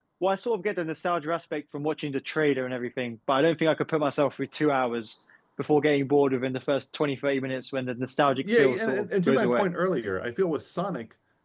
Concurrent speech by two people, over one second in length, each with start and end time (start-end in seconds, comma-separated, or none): 8.2-9.7